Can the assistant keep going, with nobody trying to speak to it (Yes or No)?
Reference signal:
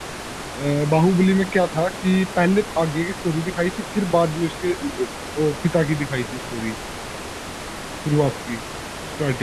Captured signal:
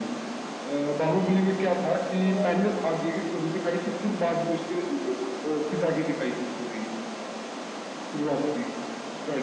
No